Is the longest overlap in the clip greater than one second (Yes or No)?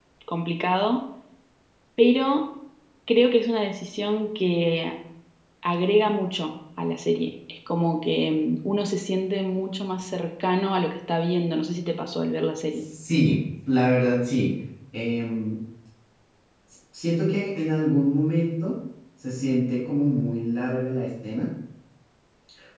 No